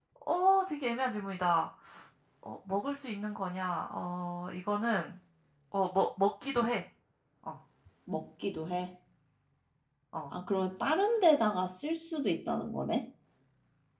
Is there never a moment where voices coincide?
Yes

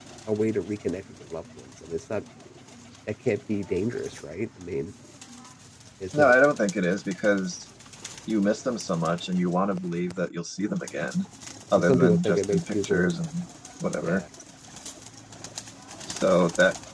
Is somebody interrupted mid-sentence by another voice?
Yes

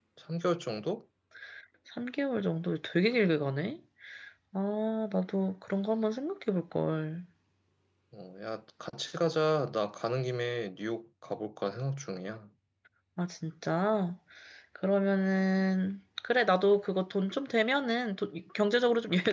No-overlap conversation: Yes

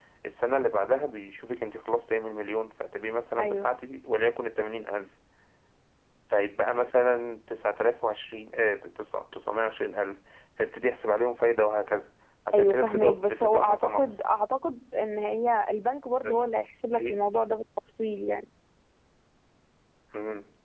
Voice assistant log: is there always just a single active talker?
No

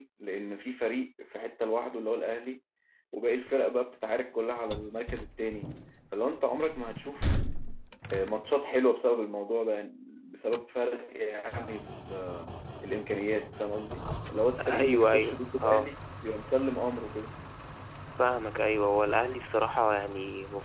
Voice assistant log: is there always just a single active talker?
No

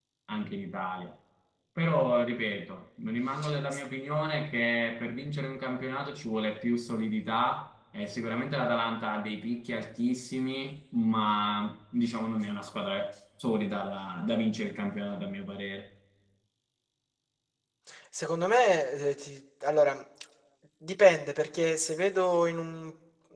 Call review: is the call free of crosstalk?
Yes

